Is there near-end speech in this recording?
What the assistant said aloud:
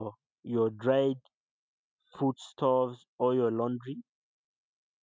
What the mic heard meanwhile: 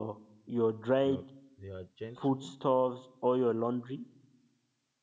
Yes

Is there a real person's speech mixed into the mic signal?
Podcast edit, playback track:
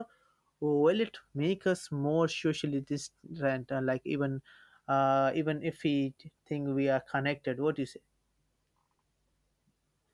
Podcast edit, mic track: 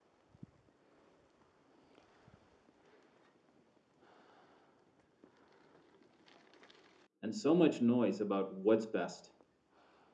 Yes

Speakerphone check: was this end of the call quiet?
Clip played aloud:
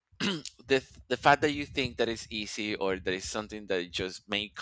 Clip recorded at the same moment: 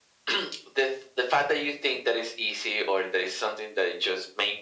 Yes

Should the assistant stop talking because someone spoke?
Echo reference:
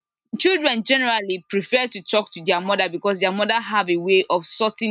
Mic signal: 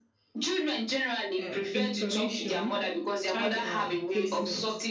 Yes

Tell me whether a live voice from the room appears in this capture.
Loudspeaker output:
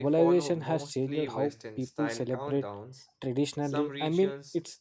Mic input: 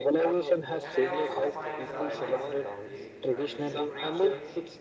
Yes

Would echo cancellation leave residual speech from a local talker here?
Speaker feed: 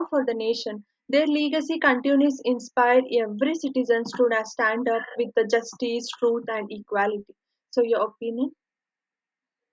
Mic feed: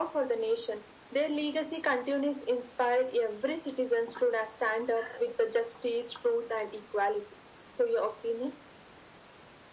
No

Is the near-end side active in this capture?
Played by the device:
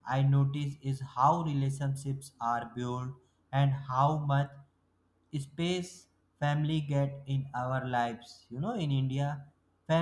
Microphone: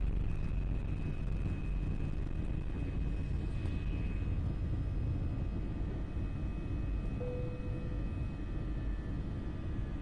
No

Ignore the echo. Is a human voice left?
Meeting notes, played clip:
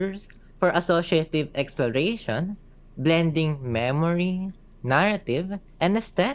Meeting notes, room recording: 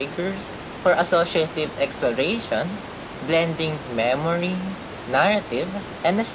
No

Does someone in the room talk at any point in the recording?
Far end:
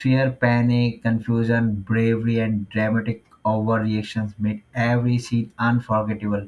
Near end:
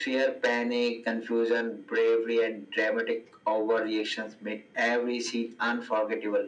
No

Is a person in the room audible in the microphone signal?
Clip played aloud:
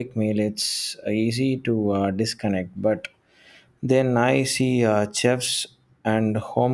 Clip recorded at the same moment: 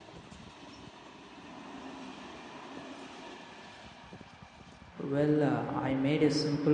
Yes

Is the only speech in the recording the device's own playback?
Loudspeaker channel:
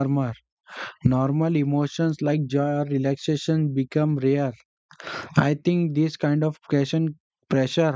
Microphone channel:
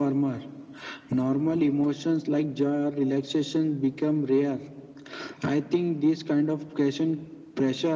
Yes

